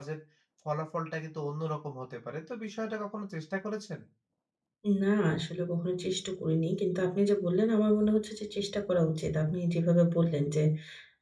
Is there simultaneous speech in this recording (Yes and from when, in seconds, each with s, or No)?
No